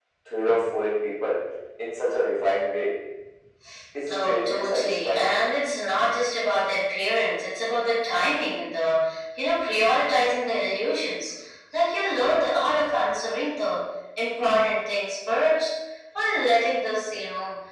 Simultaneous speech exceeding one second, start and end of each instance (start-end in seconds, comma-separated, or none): 4.1-5.3